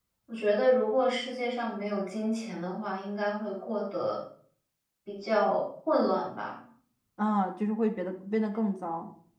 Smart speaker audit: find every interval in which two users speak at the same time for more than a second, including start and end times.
none

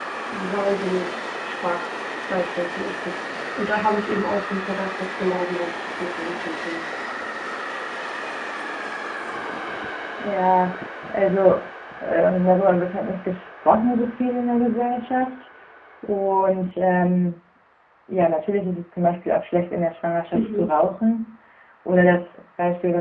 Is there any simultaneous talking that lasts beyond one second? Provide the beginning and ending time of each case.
none

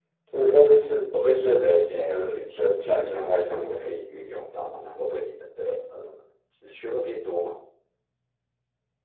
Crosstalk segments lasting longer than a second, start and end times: 1.2-3.8

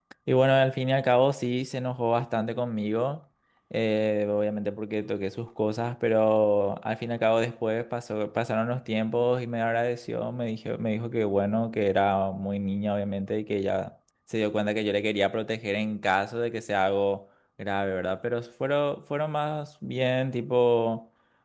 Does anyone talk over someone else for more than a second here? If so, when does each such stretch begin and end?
none

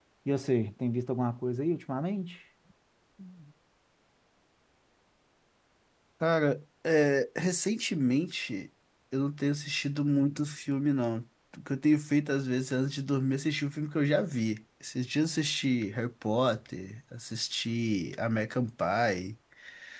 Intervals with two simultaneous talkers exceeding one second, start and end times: none

